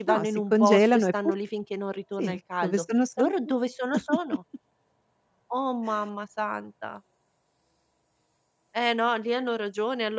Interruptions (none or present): present